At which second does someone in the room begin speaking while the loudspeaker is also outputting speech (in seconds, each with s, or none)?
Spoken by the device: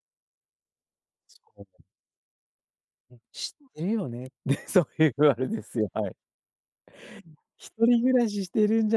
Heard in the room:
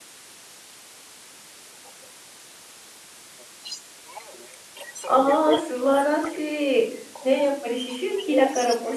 5.0 s